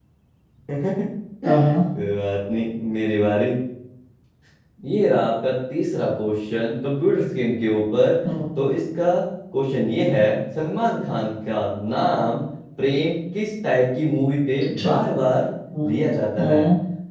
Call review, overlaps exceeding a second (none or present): none